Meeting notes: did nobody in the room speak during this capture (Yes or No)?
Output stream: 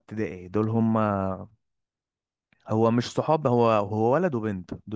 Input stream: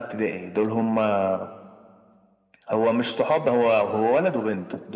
Yes